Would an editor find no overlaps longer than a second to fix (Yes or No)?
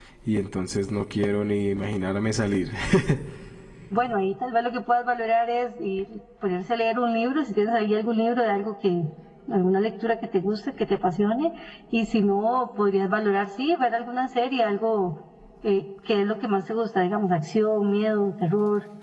Yes